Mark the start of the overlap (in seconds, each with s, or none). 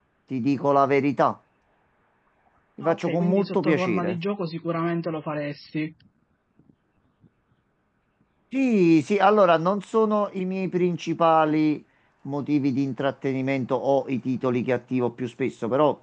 2.8 s